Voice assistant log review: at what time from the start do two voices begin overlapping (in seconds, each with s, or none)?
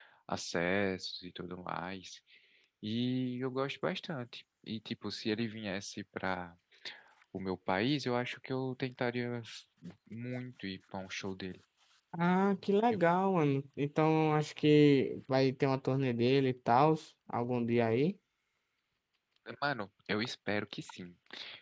none